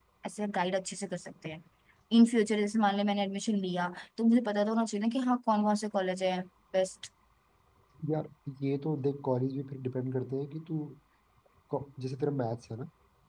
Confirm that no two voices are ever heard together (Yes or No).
Yes